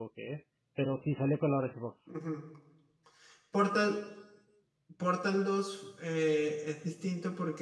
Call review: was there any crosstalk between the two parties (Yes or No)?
No